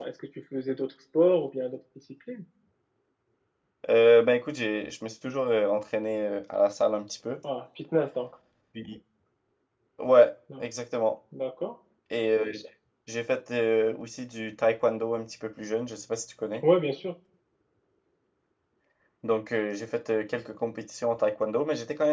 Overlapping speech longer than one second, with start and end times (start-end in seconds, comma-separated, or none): none